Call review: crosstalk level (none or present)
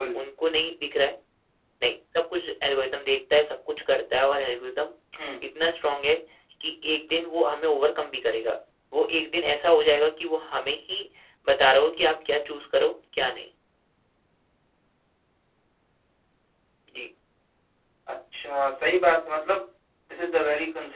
none